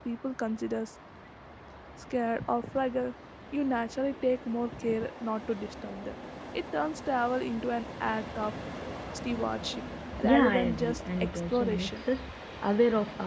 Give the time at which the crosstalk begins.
10.2 s

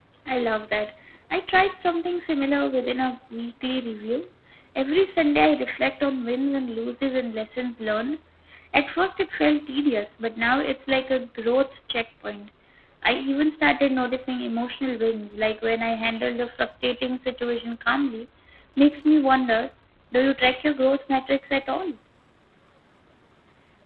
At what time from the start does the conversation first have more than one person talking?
none

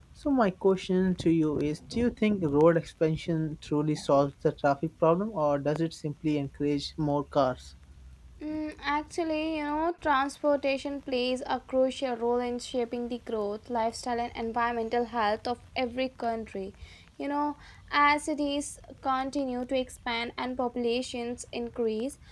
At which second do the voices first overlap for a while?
none

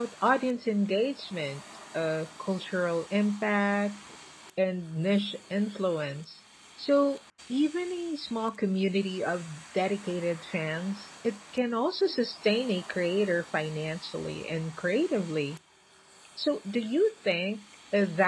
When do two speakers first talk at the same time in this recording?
none

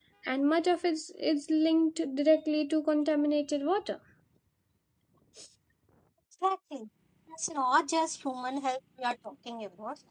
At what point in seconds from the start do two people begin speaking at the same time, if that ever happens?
none

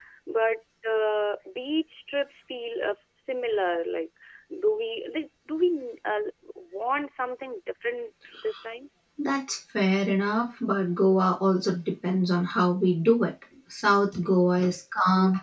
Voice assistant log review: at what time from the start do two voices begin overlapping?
none

